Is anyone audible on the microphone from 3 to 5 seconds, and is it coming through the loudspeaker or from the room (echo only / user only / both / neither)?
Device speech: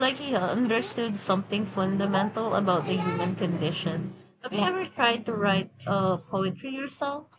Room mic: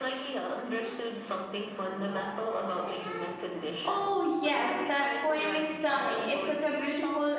both